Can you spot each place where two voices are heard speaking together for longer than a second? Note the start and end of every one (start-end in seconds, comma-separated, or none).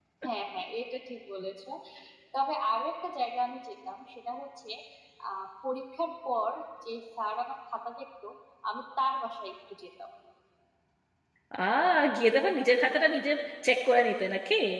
none